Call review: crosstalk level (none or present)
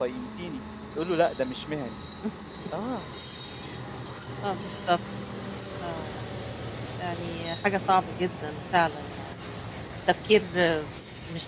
none